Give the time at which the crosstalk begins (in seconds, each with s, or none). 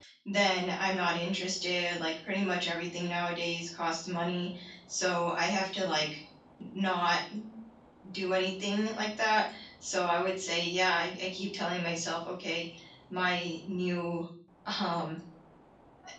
none